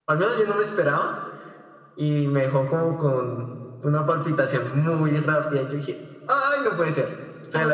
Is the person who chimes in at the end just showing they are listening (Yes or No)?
Yes